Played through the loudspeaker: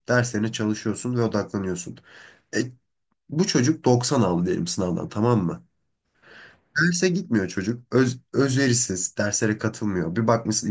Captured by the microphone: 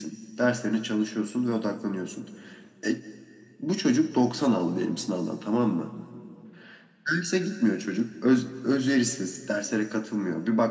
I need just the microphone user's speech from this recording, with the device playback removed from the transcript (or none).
none